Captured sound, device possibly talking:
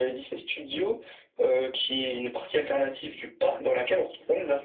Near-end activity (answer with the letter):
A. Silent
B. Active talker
A